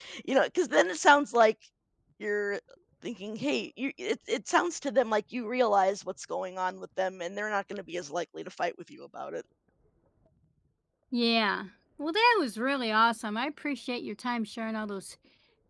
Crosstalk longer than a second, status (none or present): none